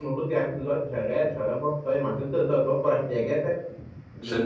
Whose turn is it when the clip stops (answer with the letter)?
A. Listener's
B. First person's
B